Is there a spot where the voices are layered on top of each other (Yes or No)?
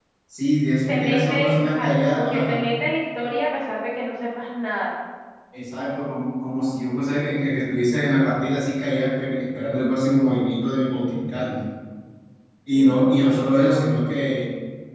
Yes